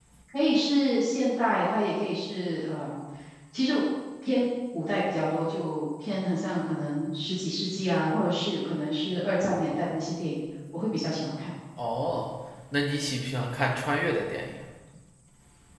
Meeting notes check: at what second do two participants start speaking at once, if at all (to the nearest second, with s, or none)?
none